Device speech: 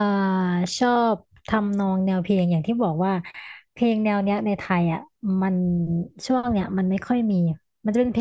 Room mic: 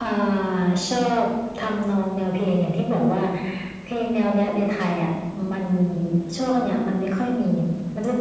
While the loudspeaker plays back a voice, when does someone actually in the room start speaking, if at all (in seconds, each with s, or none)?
none